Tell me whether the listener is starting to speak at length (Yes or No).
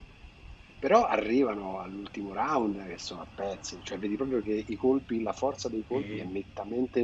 No